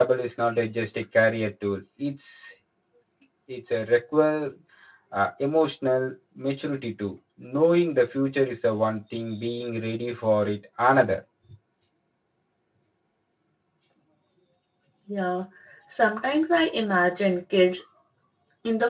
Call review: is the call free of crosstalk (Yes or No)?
Yes